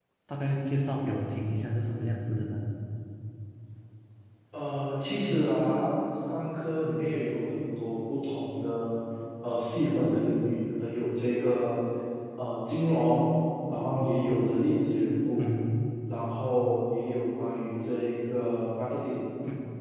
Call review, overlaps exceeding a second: none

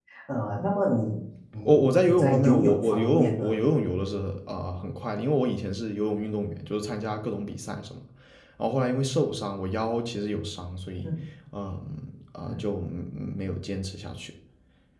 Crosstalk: present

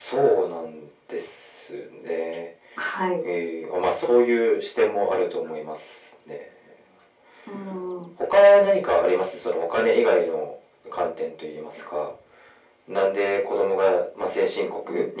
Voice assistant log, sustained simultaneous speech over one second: none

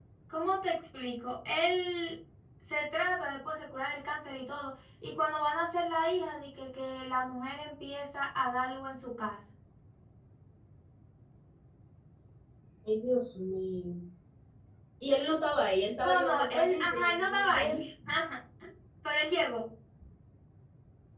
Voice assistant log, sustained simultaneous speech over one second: present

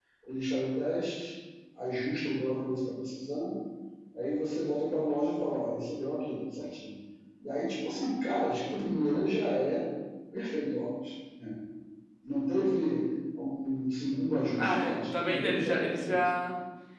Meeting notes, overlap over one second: present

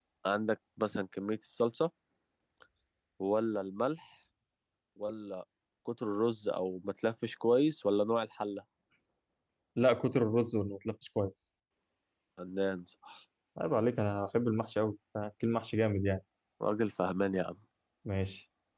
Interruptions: none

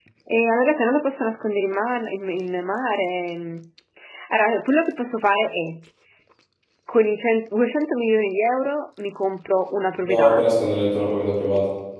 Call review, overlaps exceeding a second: none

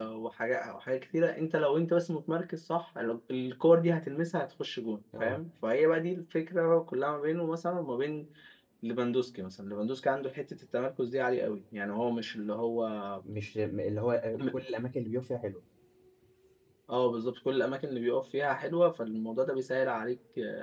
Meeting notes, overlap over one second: none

